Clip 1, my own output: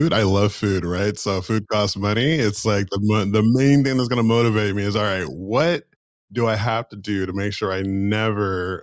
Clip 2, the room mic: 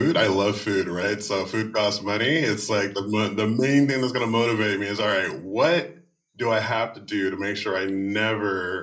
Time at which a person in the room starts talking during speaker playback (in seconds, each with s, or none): none